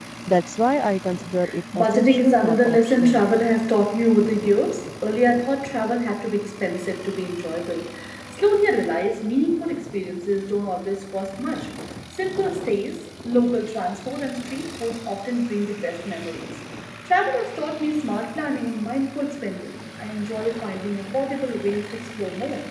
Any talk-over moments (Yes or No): Yes